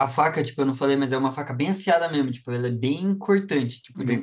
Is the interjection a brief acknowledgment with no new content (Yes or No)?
Yes